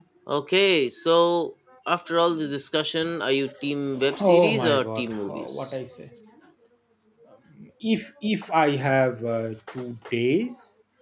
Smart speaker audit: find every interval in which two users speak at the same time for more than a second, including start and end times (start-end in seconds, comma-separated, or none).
4.2-5.7